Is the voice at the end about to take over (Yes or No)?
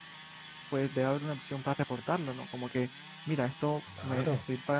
No